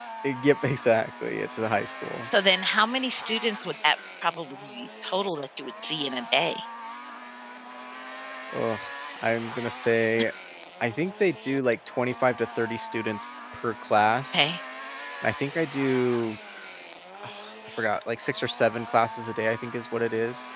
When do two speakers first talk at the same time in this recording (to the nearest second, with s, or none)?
none